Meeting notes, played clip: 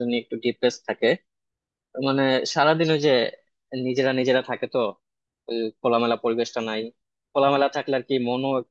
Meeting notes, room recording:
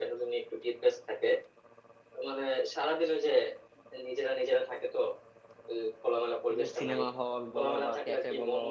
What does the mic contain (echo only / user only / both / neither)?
both